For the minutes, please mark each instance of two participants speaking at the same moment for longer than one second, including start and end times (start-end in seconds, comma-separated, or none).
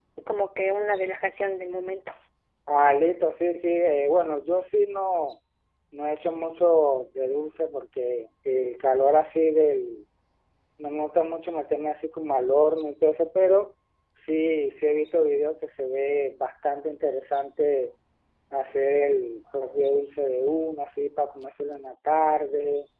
none